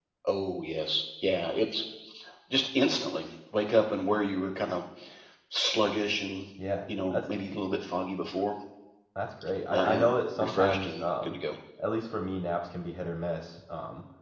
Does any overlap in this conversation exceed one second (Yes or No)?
Yes